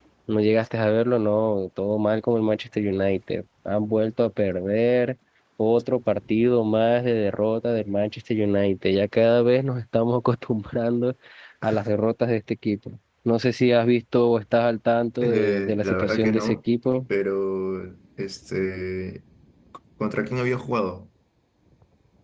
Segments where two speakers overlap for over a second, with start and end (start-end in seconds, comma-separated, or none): 15.2-16.6